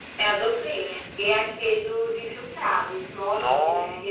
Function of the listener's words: taking over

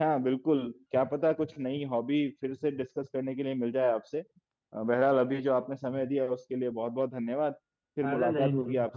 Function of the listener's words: taking over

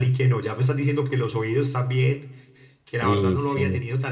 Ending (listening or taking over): listening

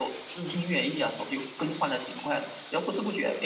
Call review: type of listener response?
listening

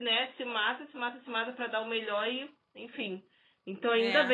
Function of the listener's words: listening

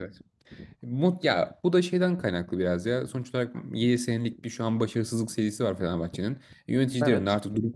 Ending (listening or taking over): listening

